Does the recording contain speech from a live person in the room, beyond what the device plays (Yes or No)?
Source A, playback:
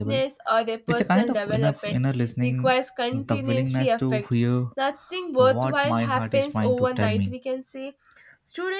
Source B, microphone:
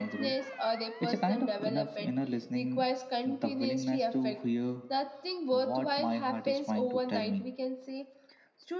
No